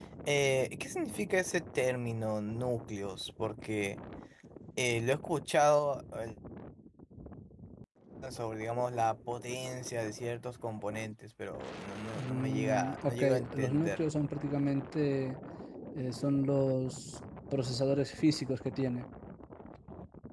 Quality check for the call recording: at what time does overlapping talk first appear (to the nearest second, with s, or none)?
12 s